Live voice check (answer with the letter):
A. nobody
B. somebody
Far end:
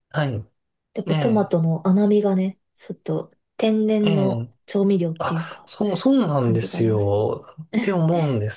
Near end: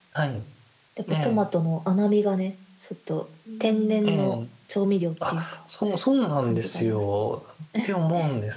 B